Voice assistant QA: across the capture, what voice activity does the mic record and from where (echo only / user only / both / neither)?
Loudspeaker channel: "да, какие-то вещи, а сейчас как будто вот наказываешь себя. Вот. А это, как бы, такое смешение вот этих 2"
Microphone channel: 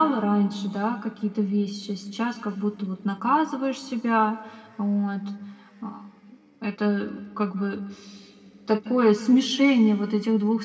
echo only